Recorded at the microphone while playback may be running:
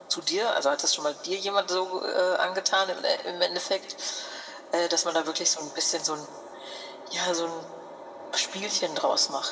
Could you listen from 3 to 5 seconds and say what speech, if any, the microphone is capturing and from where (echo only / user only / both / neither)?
echo only